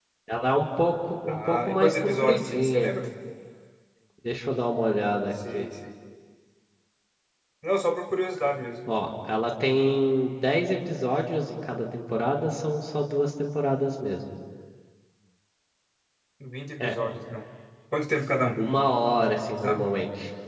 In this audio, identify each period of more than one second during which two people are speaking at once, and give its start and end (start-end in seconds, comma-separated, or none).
1.3-2.9